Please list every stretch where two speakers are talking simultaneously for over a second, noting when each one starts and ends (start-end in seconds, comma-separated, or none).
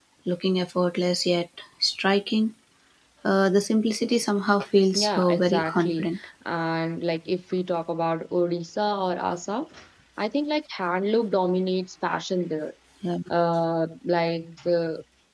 4.9-6.2